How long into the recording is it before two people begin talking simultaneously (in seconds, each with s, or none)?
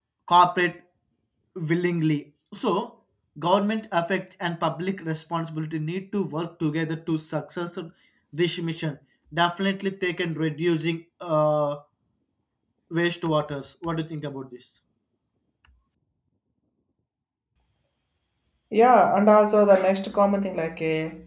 none